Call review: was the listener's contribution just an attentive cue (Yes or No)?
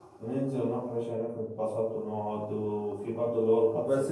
No